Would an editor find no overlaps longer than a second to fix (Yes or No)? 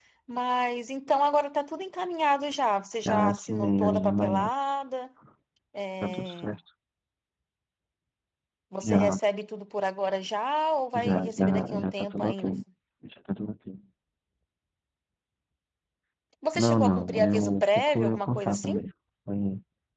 No